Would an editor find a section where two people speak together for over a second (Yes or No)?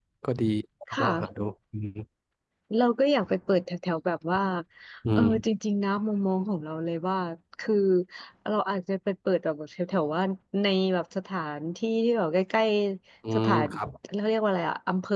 No